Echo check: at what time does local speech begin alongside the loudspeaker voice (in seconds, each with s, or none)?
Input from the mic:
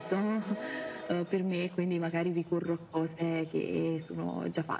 none